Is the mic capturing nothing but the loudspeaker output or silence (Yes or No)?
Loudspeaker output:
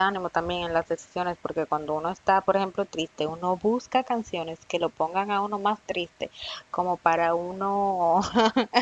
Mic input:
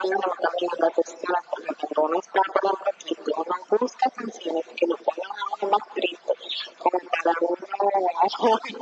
Yes